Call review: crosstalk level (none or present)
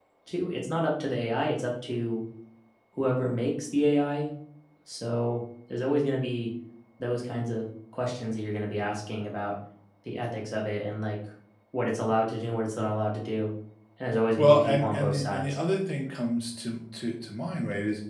present